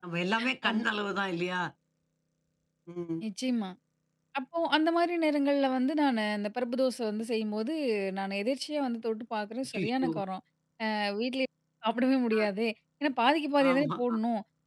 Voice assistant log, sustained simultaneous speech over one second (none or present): none